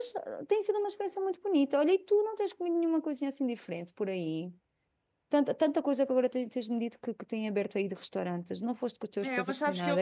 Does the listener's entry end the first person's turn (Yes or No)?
Yes